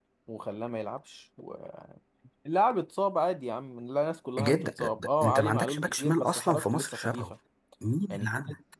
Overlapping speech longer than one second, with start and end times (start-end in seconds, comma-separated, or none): 4.4-7.3